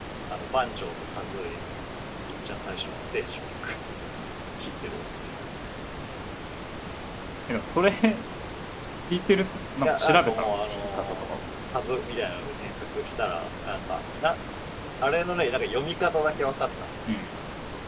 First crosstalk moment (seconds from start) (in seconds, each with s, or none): 9.8 s